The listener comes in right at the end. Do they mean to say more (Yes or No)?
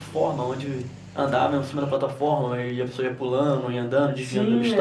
Yes